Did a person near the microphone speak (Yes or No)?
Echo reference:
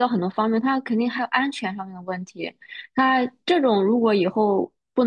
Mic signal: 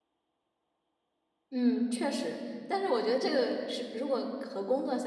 Yes